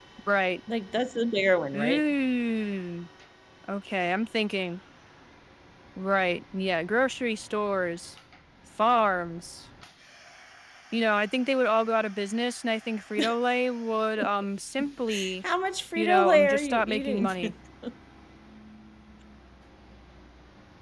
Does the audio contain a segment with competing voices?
Yes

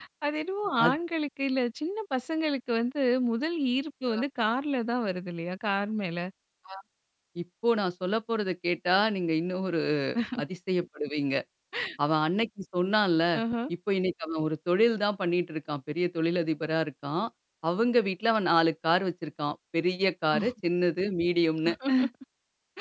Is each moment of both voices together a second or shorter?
Yes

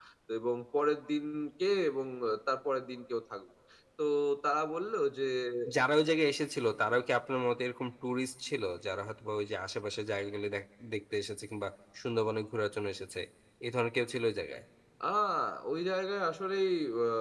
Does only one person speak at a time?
Yes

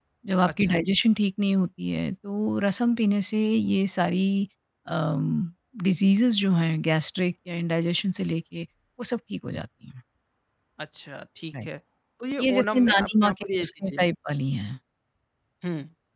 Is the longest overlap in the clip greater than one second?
Yes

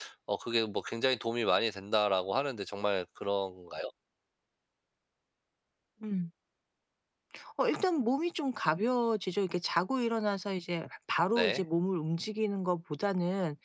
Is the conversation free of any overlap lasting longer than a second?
Yes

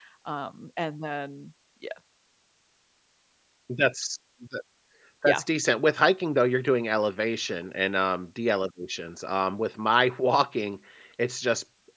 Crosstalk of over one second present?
No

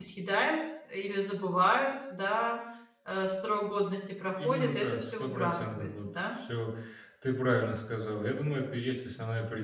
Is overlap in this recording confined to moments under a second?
No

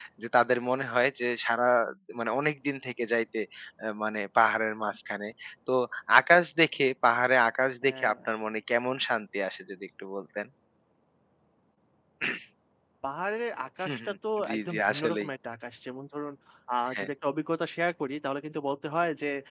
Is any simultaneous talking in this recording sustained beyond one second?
Yes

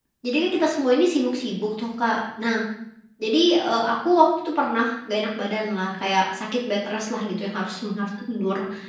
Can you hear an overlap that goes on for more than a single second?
No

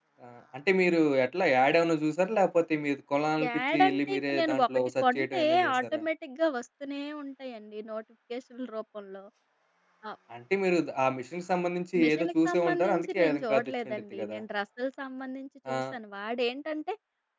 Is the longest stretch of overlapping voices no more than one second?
No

